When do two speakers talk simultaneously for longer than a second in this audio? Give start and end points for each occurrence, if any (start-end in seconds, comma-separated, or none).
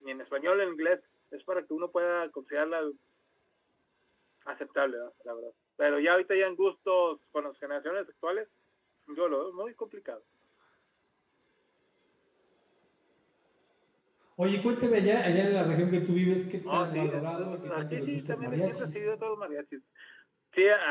16.7-18.9